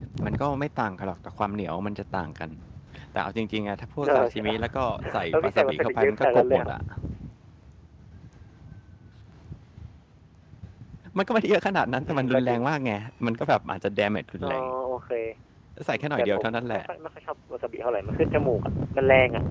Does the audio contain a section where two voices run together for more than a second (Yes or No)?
Yes